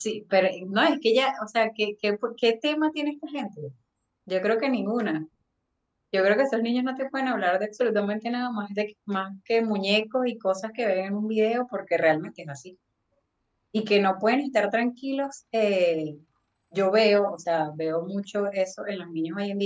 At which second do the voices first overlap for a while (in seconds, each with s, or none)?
none